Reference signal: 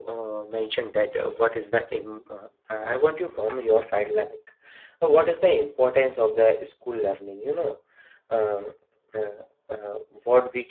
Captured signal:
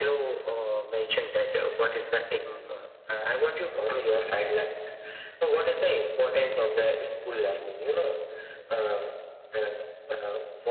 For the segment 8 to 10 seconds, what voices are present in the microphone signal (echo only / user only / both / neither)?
echo only